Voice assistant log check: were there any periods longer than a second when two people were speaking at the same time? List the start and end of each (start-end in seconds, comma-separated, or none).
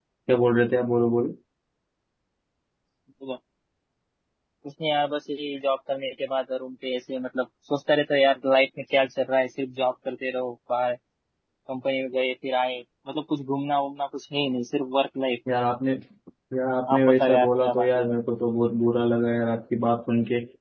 16.9-18.1